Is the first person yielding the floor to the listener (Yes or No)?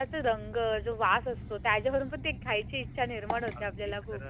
Yes